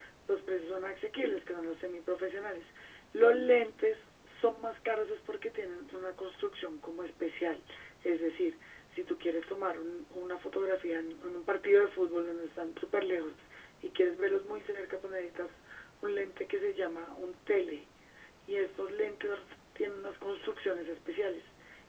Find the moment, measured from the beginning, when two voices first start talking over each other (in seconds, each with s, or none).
none